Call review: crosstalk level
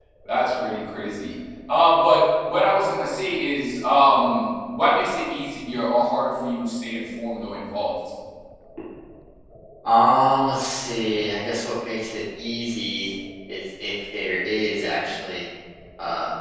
none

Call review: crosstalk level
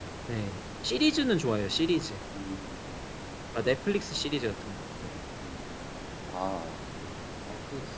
none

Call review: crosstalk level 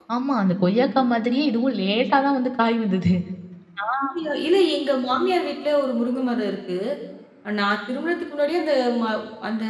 none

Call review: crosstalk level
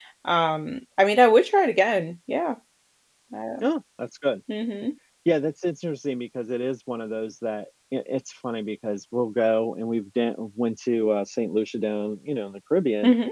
none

